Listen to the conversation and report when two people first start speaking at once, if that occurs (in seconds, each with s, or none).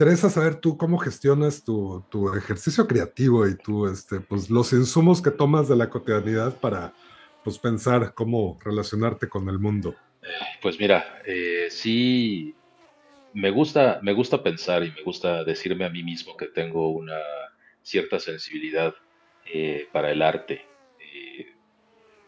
none